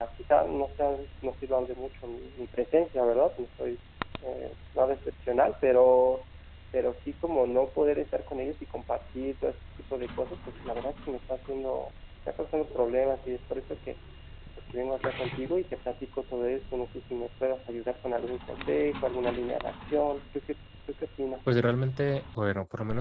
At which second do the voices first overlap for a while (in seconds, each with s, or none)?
none